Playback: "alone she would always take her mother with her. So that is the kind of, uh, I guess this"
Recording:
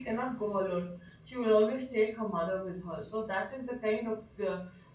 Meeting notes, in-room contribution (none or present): none